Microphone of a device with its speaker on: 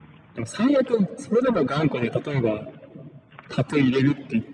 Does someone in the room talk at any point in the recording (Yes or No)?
No